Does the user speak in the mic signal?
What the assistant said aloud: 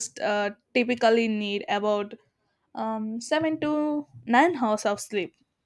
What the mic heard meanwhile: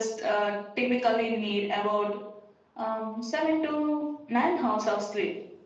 No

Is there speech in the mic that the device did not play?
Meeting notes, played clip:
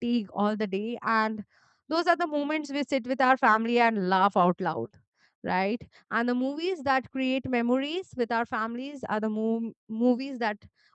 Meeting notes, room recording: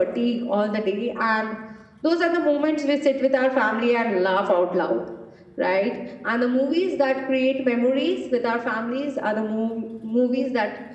No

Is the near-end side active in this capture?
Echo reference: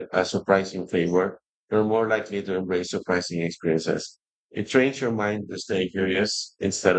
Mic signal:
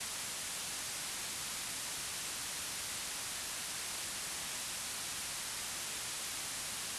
No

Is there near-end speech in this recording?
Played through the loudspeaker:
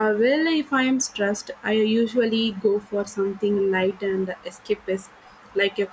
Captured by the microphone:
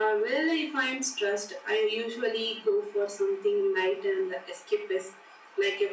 No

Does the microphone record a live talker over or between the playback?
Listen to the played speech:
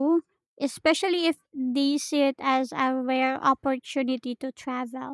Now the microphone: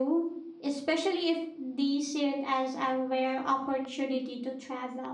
No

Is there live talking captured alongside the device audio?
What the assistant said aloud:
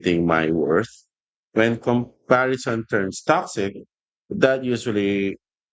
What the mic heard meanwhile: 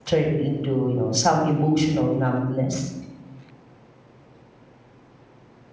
Yes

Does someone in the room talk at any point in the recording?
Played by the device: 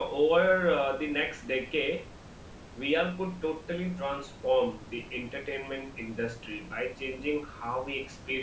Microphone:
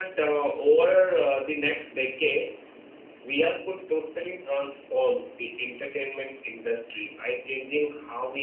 No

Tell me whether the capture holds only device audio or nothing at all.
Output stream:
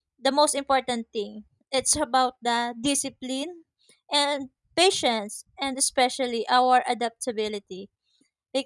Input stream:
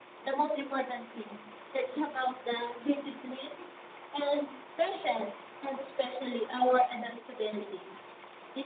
Yes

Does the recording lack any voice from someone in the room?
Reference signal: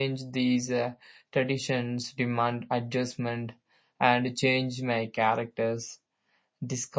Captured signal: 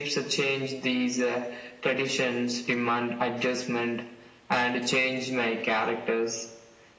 Yes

